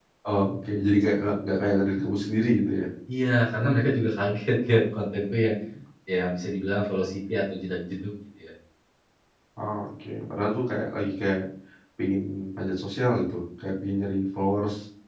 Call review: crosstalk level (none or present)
none